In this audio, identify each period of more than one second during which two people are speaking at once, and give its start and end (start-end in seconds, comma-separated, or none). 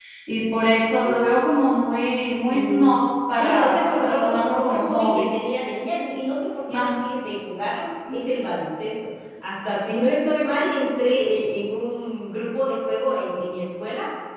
3.3-5.3